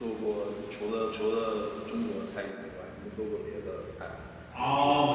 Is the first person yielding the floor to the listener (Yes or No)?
Yes